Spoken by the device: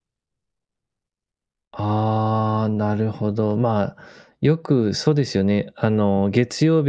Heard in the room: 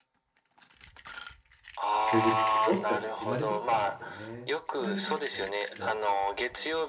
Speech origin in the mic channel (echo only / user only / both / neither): both